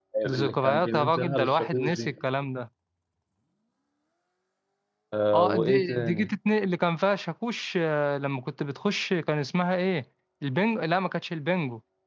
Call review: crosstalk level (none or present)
present